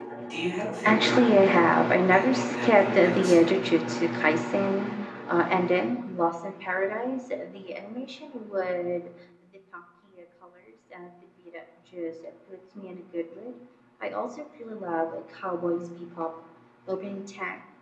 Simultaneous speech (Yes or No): Yes